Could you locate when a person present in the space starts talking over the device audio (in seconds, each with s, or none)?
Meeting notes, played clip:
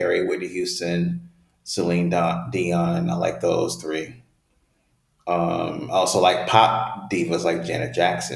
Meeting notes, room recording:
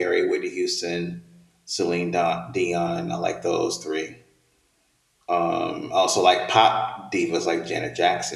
none